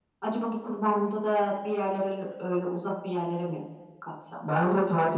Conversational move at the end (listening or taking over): taking over